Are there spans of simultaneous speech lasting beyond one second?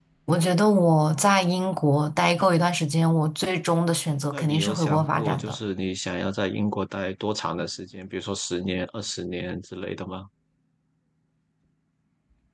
Yes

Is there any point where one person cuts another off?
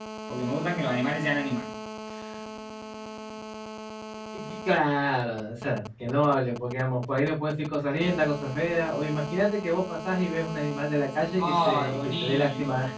Yes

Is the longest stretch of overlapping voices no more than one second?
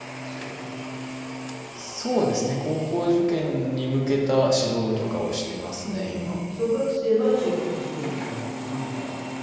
Yes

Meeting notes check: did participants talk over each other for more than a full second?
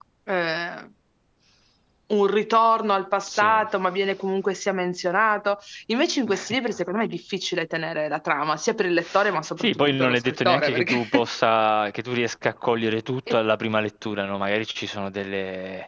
Yes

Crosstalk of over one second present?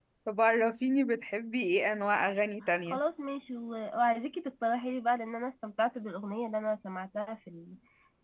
No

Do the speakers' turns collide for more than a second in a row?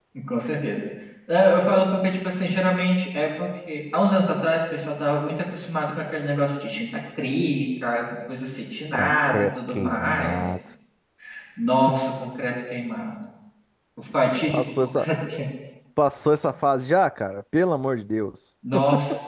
Yes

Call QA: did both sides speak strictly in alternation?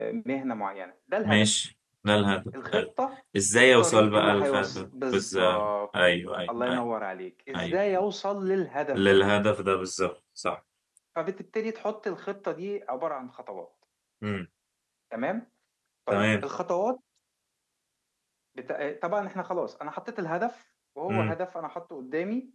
No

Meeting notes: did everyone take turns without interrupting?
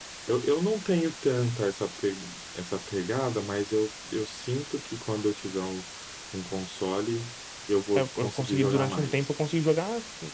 No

